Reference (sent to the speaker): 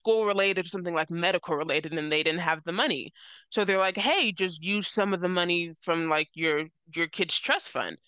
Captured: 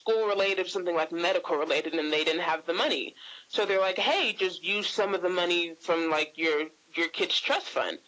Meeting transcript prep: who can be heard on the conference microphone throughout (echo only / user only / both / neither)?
echo only